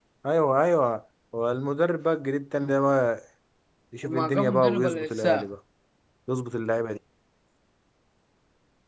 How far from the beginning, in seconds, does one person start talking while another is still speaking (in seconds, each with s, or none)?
4.0 s